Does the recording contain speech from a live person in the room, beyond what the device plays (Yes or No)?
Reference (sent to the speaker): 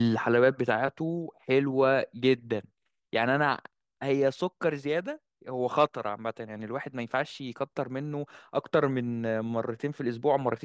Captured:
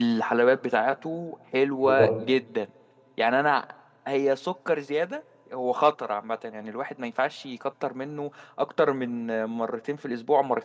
Yes